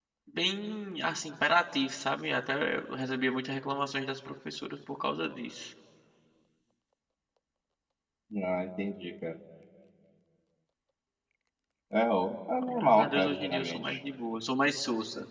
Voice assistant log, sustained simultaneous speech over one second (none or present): present